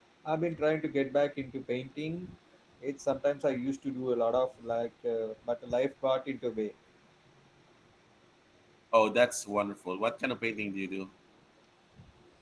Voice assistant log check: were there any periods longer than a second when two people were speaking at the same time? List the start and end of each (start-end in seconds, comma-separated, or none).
none